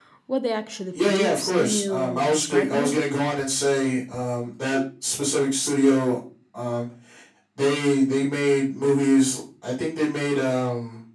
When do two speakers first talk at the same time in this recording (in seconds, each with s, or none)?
0.9 s